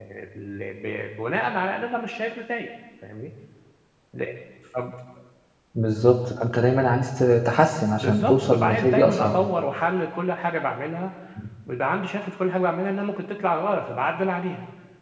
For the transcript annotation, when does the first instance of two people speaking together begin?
8.0 s

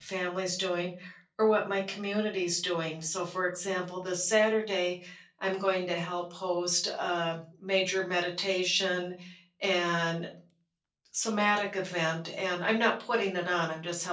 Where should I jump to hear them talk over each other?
none

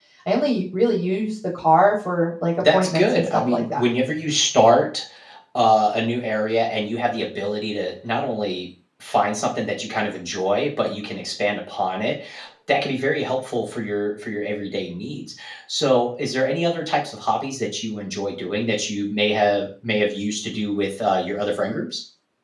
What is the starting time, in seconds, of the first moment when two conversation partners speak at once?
2.6 s

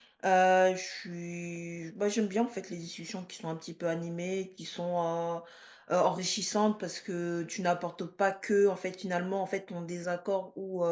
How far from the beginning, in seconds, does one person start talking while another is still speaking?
none

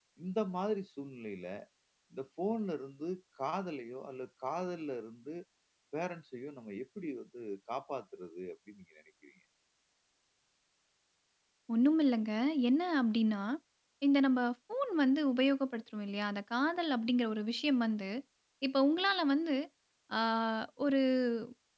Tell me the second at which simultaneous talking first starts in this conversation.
none

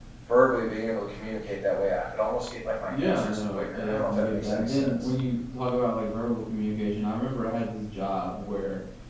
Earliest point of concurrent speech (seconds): 2.9 s

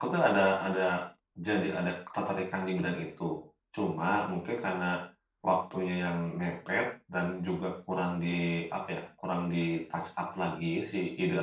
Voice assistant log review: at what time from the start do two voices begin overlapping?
none

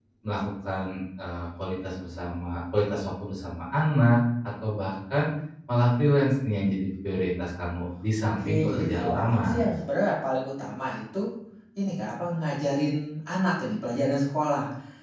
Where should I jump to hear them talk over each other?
8.4 s

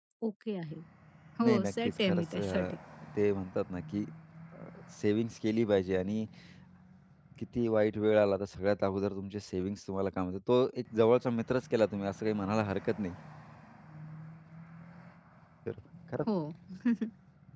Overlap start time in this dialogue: 1.4 s

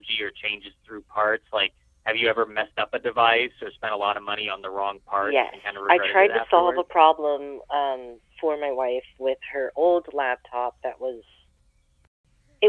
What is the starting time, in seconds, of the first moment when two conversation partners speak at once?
5.2 s

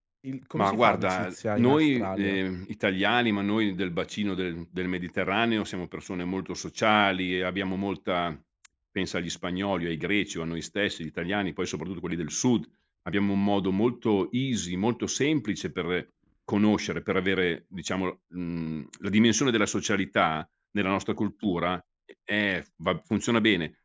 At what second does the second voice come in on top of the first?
0.6 s

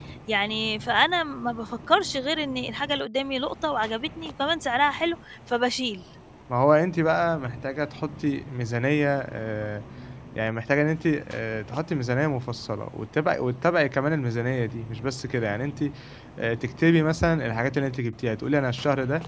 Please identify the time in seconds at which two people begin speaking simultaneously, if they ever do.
none

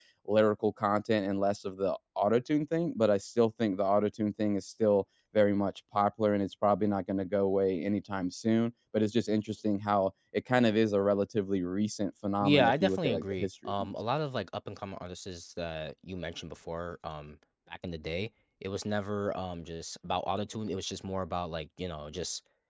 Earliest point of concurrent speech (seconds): 12.4 s

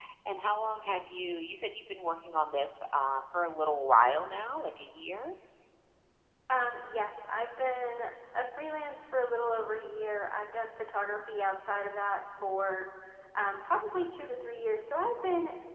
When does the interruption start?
none

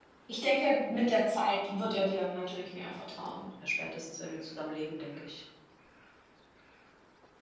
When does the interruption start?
none

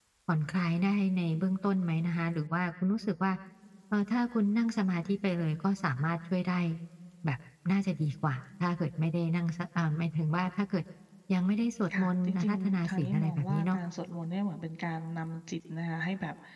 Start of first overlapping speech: 12.0 s

